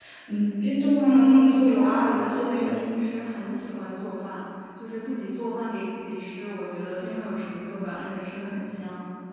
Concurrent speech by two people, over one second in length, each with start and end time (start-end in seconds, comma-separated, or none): 1.0-2.8